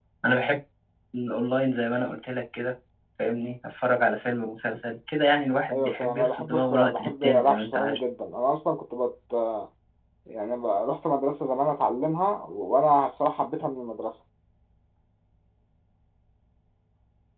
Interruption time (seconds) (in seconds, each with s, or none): 5.7 s